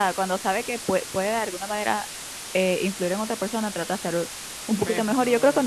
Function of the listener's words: listening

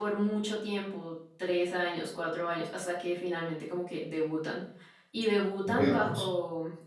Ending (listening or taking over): listening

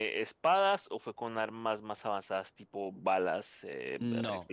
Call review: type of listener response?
taking over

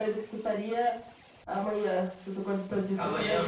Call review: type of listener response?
taking over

